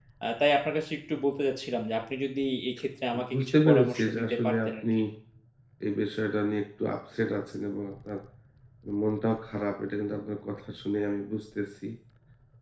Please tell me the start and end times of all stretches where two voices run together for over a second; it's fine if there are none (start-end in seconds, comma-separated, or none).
3.3-4.8